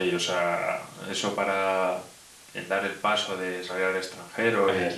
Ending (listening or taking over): listening